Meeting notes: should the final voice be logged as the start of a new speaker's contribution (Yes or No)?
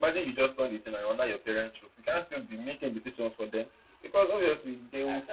No